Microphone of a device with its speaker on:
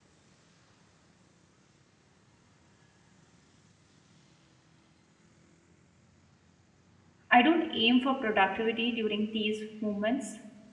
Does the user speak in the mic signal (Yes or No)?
Yes